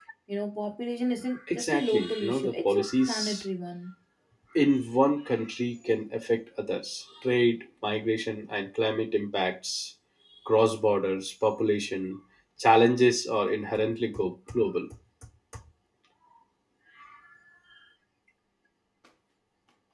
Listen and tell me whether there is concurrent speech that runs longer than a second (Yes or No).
Yes